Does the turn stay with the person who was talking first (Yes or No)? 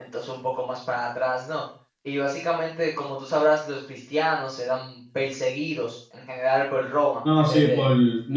No